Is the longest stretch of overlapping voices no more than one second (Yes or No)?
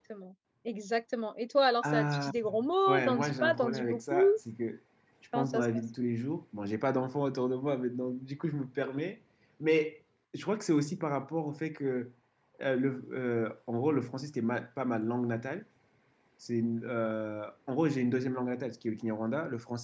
No